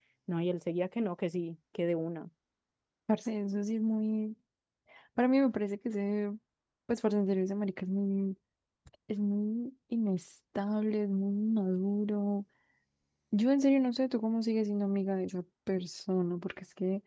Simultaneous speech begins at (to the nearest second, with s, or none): none